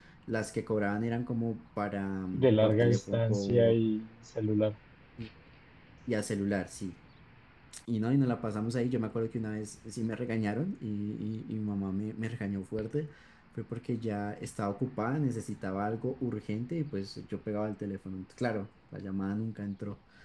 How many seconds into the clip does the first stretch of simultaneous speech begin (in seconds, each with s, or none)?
2.3 s